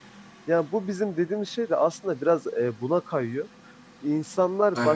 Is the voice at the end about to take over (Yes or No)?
No